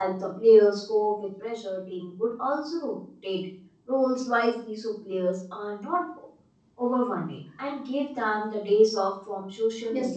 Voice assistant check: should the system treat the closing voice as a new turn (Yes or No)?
Yes